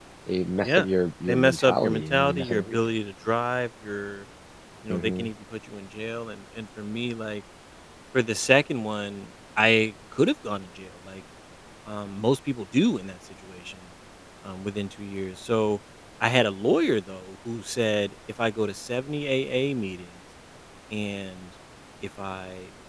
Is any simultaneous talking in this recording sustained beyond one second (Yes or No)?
Yes